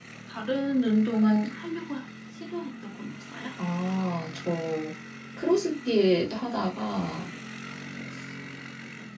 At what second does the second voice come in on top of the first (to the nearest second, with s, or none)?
none